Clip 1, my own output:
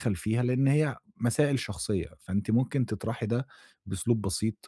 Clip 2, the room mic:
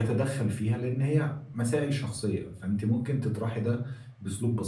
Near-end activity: none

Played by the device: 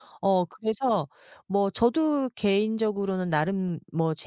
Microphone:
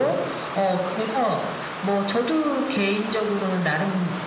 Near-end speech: none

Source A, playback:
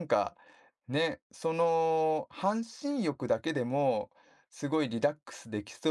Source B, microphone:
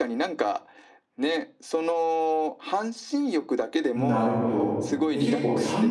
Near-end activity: present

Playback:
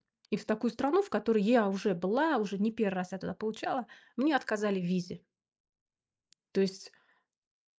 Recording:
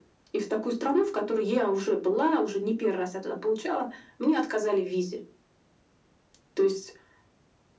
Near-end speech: none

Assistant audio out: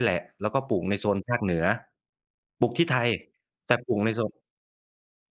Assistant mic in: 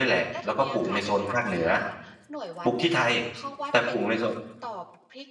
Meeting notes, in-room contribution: present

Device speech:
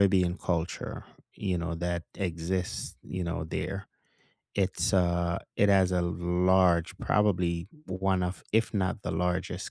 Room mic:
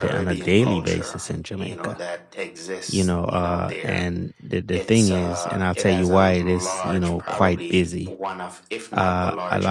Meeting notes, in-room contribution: present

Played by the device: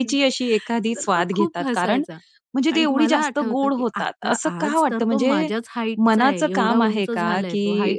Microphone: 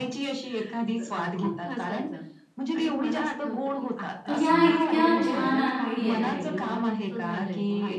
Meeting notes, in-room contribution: present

